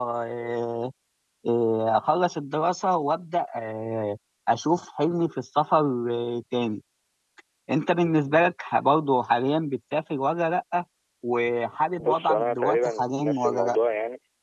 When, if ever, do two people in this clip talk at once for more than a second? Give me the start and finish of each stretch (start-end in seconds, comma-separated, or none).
12.0-13.8